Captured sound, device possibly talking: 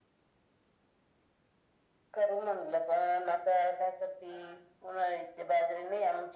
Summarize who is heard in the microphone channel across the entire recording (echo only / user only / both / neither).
echo only